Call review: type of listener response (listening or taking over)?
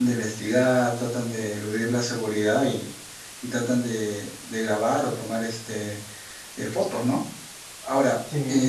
listening